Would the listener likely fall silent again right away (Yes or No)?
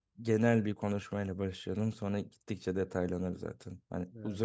Yes